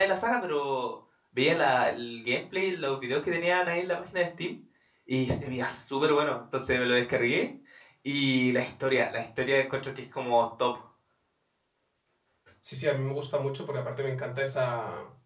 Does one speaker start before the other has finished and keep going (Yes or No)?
No